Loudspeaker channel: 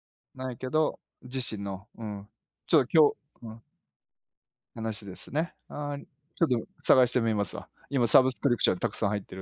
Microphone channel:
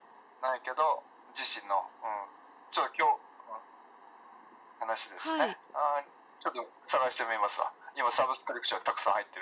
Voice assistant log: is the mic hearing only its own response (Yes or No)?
No